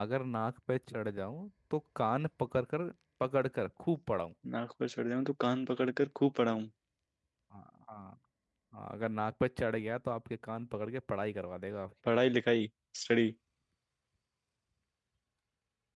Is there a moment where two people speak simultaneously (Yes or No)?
No